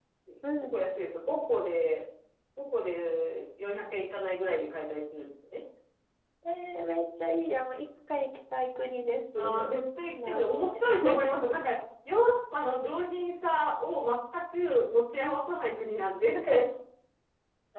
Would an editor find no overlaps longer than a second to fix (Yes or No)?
No